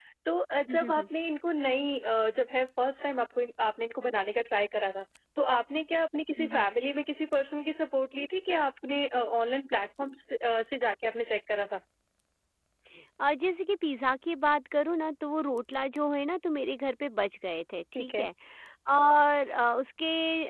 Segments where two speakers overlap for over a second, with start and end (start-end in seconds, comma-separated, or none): none